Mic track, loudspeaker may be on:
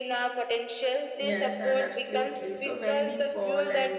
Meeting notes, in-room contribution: present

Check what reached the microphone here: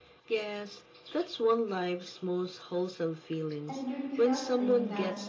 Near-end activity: present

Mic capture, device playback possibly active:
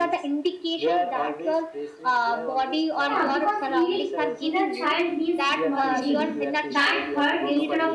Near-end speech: present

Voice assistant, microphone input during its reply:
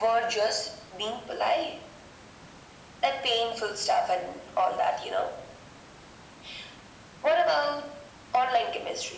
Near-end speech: none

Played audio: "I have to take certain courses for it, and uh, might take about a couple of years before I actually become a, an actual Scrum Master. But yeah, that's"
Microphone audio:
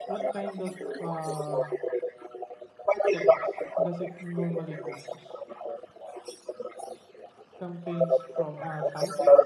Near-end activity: present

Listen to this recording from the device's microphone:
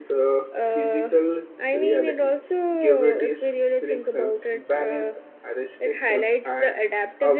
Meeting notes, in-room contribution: present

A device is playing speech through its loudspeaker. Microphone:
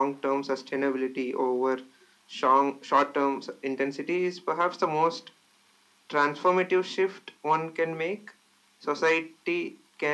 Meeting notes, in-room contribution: none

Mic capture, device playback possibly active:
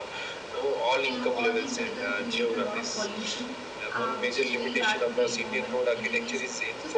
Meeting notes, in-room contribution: present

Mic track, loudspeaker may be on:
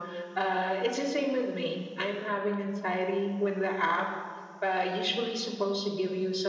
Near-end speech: none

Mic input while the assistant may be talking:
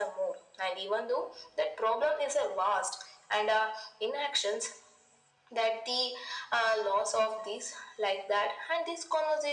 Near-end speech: none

